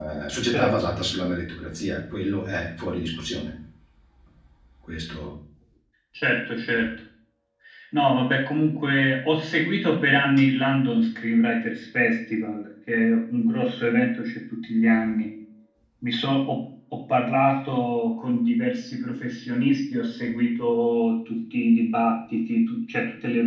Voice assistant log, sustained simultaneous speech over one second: none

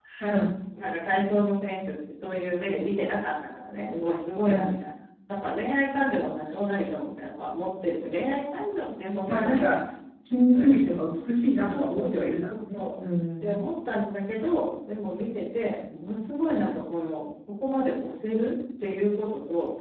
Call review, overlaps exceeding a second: present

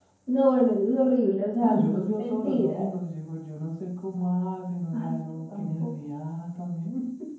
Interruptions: present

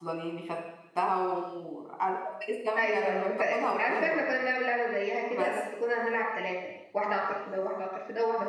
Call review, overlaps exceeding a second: present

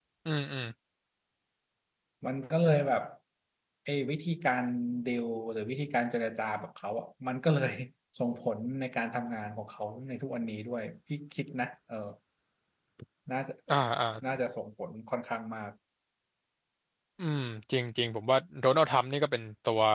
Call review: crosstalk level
none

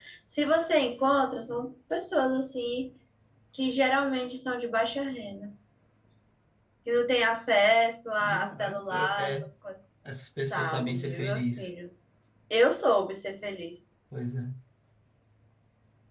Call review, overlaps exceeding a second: present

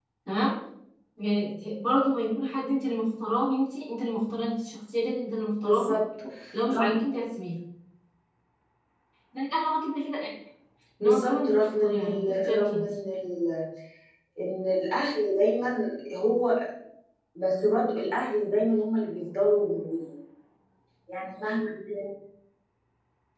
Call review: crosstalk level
present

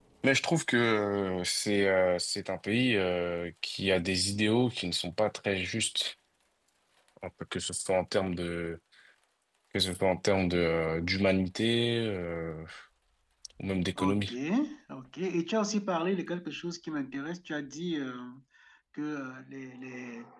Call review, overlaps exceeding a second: none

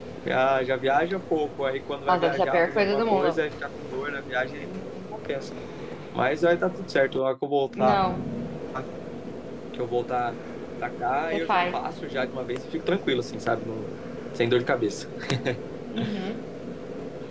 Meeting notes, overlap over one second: present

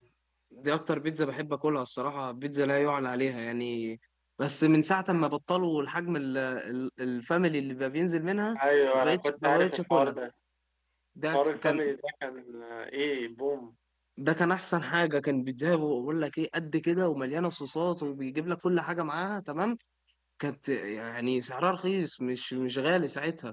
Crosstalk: present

